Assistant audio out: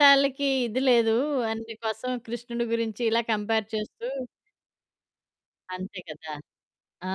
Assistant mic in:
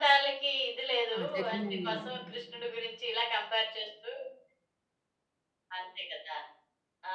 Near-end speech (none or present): present